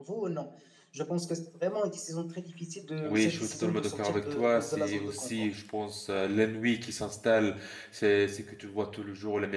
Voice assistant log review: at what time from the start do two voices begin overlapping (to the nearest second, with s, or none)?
3 s